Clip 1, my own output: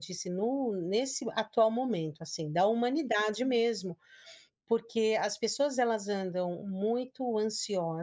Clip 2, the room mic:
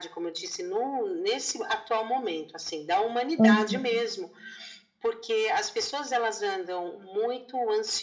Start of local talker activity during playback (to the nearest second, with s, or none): 3 s